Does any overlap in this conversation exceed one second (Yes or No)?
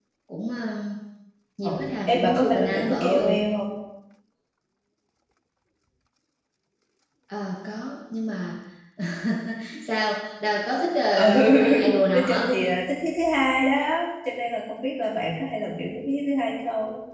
Yes